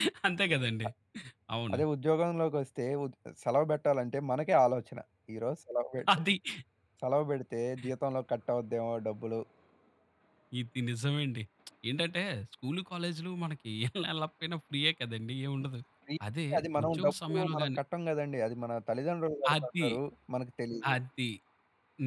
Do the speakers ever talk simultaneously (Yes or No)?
Yes